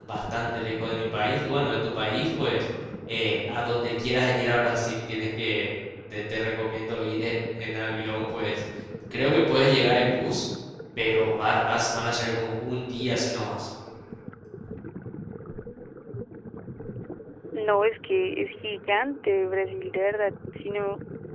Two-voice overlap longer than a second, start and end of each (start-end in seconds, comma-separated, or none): none